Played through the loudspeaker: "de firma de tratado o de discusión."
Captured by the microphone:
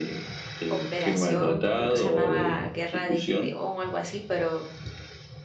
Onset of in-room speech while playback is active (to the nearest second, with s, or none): 1 s